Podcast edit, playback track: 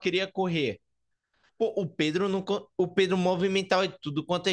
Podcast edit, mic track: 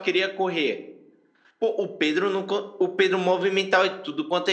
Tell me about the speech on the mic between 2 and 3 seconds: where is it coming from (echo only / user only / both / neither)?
echo only